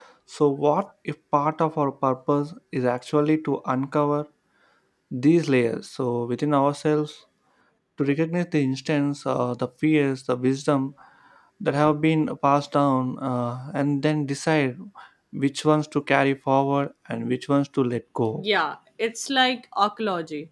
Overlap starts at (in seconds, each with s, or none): none